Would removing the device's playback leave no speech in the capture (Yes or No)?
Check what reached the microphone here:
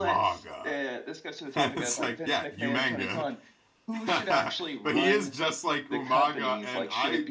No